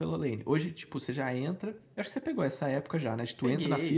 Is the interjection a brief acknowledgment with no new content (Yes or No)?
Yes